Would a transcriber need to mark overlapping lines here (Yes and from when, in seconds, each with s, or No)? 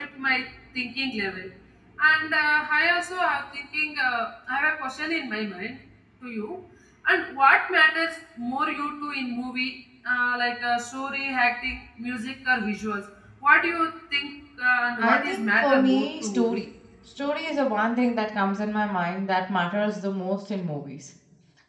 Yes, from 15.0 s